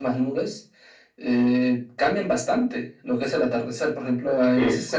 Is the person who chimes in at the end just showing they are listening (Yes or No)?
Yes